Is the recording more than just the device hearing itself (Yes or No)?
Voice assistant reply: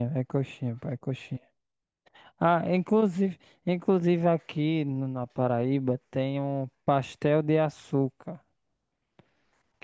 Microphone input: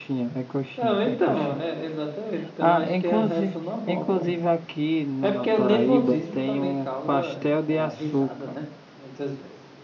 Yes